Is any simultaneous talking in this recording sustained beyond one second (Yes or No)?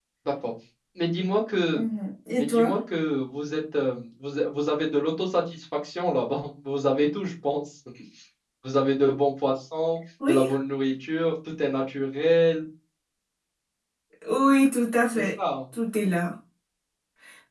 No